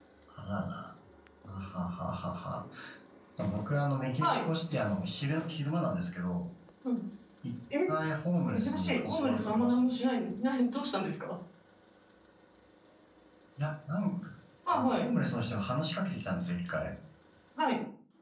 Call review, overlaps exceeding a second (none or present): present